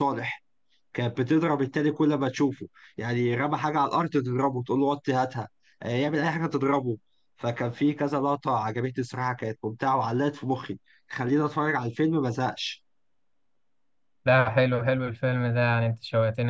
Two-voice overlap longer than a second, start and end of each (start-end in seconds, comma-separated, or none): none